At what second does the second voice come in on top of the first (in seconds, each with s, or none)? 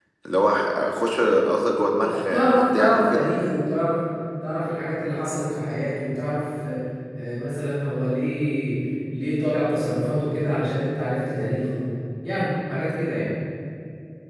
2.0 s